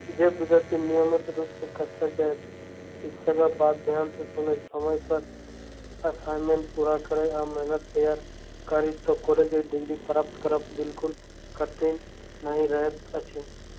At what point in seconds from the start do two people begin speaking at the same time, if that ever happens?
none

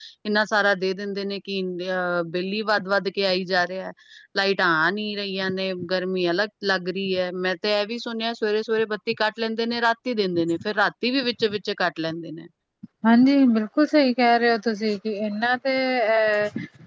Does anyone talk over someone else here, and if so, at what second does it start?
none

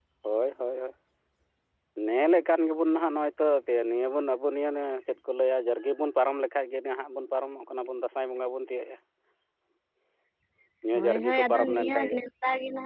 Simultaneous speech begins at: 11 s

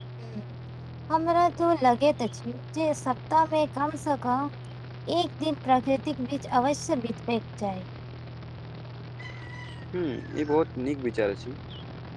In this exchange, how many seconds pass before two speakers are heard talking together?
none

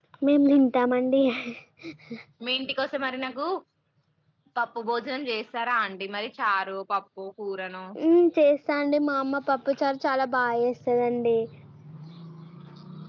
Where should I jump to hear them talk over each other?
none

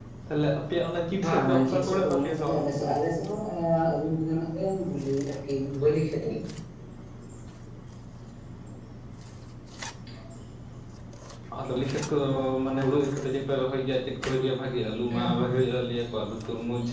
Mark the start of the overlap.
1 s

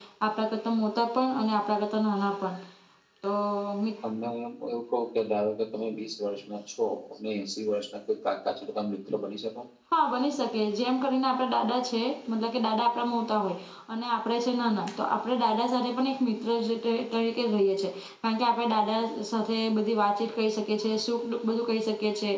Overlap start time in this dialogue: none

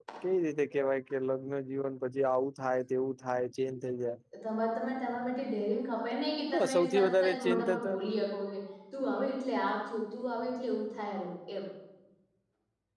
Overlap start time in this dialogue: 7 s

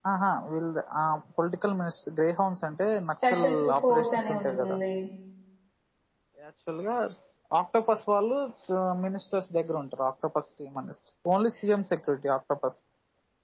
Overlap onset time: 3 s

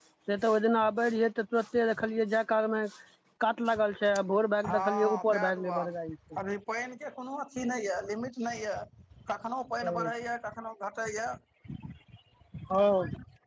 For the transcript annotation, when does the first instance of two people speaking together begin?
5 s

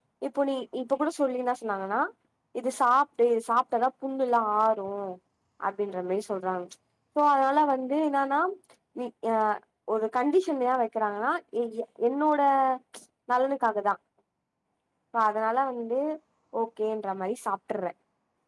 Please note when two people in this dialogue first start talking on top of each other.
none

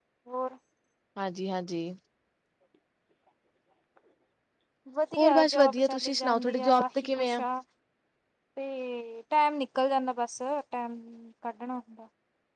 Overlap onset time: 5 s

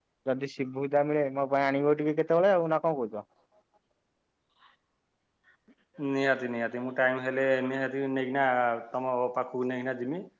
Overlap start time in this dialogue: none

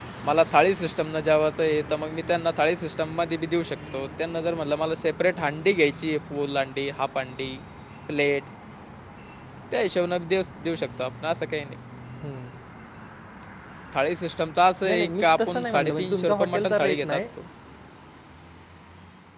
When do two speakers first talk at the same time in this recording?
15 s

